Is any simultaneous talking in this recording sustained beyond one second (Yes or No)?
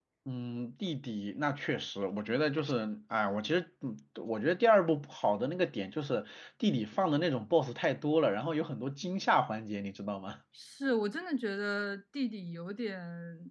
No